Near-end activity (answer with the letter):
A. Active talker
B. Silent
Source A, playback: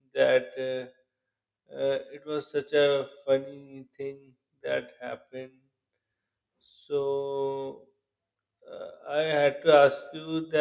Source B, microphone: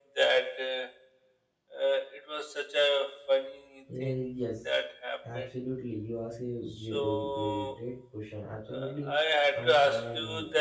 A